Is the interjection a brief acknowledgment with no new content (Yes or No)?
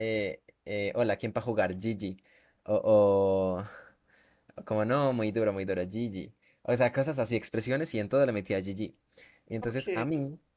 Yes